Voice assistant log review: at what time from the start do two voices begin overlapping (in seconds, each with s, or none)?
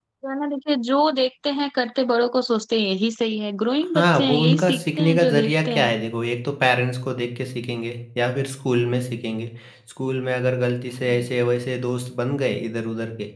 3.9 s